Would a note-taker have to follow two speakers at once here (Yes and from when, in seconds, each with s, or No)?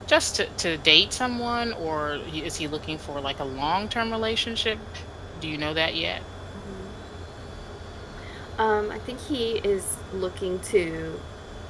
No